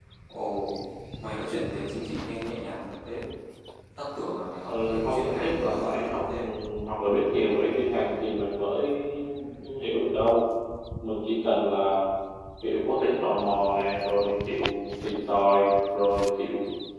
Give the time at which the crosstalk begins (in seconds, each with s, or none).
4.7 s